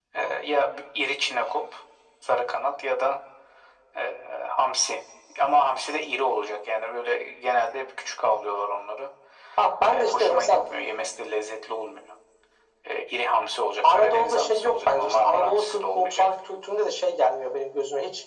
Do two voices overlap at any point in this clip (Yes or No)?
Yes